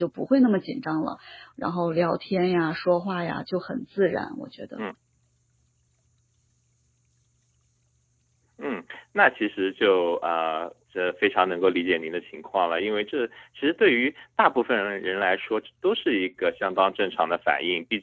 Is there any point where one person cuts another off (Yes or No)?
No